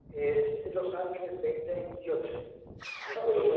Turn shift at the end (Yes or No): No